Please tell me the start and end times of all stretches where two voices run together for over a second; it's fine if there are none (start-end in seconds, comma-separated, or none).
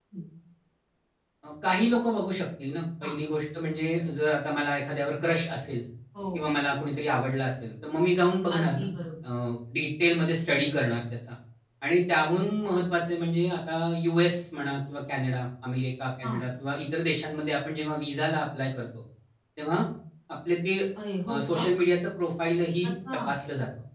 none